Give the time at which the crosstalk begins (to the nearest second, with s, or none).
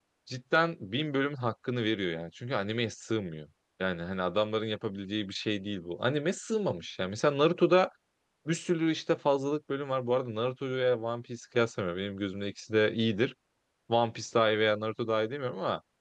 none